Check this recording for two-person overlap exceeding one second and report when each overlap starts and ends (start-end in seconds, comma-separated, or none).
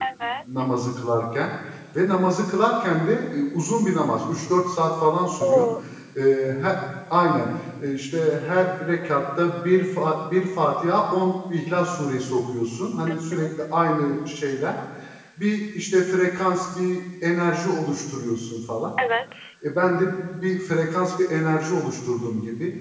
none